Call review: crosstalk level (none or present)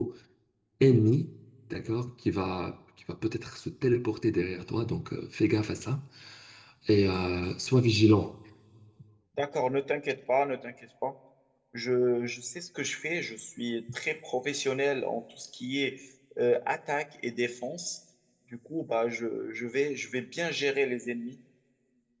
none